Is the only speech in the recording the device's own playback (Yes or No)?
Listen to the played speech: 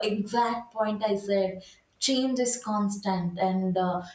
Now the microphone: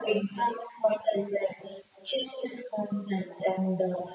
Yes